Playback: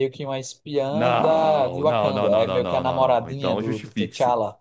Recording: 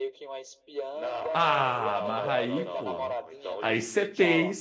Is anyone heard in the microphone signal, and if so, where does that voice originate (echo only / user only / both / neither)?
both